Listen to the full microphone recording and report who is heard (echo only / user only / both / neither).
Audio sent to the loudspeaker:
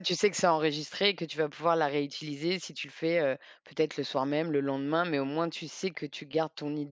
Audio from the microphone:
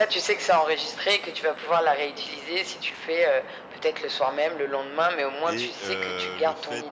both